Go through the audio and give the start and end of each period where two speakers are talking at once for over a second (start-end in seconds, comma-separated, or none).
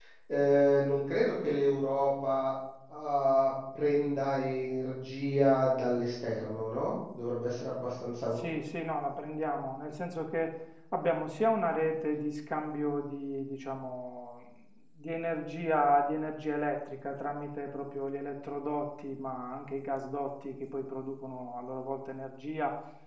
none